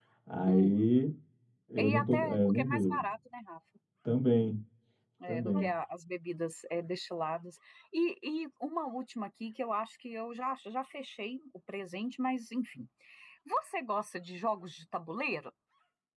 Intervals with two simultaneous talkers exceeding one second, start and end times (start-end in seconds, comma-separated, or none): 1.8-3.0